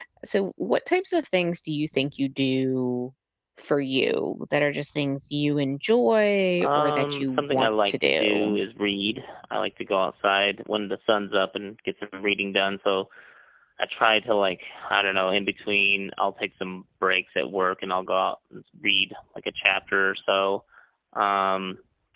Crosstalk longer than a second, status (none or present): present